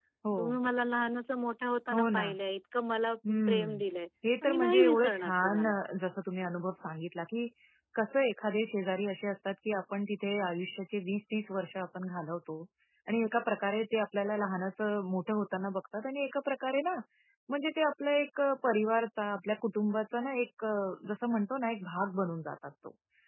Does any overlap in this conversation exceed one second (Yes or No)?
Yes